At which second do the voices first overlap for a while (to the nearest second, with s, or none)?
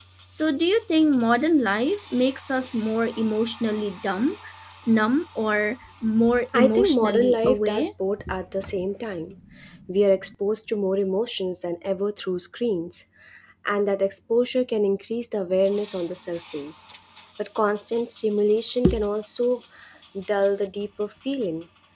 7 s